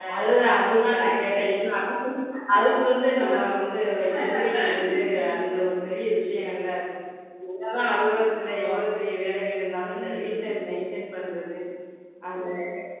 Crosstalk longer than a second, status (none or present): present